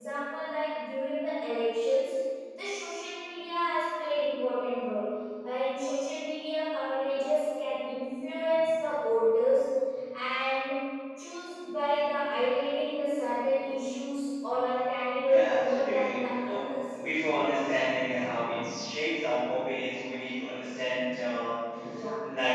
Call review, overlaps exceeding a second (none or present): present